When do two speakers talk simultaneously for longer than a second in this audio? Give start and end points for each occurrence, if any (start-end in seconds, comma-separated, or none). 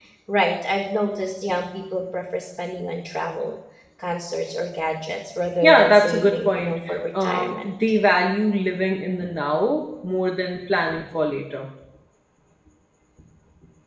5.6-7.7